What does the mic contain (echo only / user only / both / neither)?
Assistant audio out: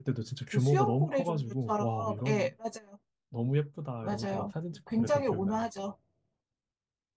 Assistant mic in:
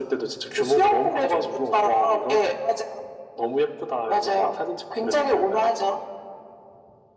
echo only